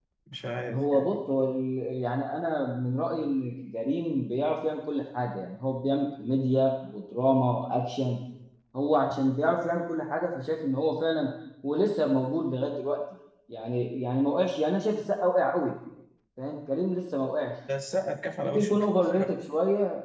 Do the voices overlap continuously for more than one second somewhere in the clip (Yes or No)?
No